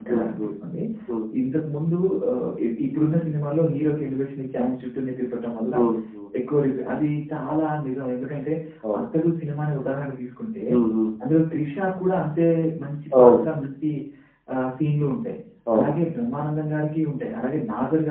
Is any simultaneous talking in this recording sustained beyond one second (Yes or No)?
No